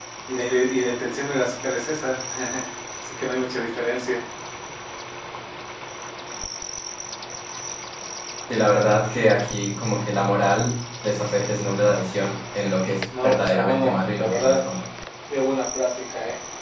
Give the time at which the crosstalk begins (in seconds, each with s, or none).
13.1 s